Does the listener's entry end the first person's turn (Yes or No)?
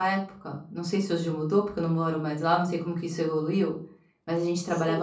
No